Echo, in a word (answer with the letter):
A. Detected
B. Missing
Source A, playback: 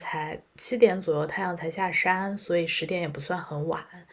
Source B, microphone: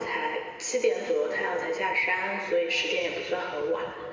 A